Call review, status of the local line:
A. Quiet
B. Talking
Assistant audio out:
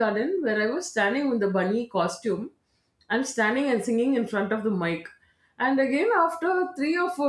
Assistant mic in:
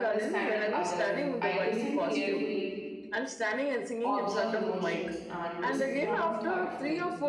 B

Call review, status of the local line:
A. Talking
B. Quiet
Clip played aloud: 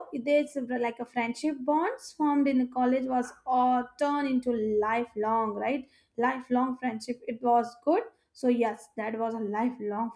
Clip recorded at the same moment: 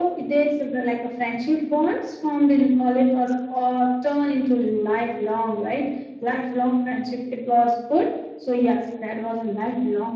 B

